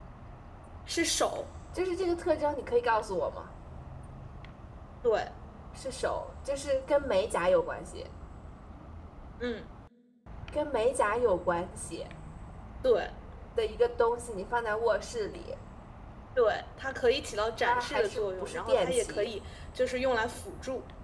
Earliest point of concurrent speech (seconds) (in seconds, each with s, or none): 17.6 s